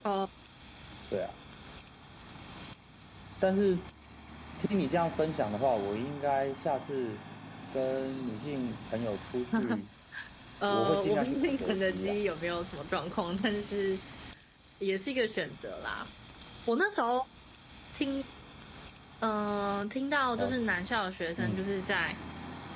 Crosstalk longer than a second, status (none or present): present